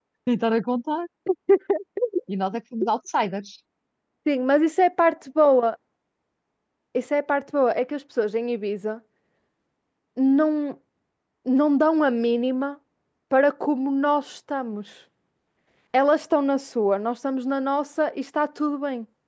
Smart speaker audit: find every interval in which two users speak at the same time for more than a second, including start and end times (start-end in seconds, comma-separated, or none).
none